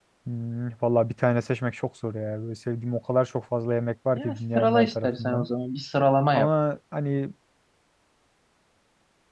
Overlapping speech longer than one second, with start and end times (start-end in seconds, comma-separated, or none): 4.1-5.4